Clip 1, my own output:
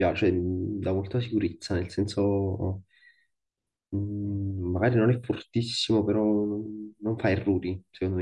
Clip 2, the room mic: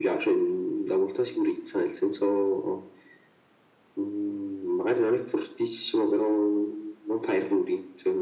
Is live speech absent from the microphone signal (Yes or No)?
Yes